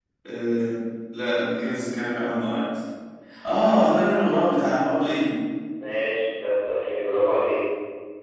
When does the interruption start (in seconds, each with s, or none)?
none